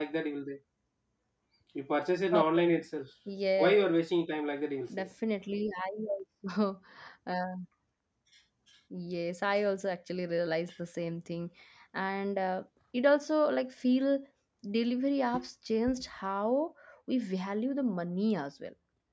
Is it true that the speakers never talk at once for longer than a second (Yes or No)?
Yes